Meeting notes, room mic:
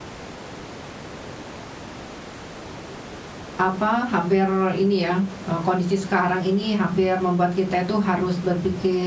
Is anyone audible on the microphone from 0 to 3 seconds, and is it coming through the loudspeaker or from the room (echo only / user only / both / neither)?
neither